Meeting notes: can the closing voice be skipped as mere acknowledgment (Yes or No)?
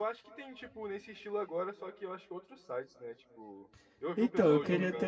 No